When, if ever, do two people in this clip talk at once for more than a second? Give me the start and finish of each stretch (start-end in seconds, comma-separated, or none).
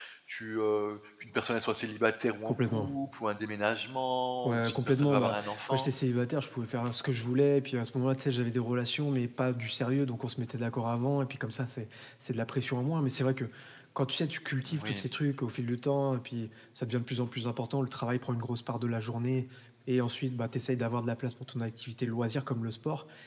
4.4-5.9